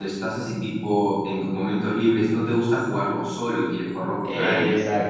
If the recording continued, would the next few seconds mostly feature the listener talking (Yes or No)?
Yes